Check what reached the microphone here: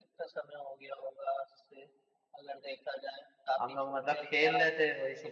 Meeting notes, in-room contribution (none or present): present